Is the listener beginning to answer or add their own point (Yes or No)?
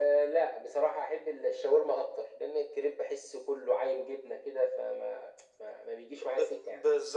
Yes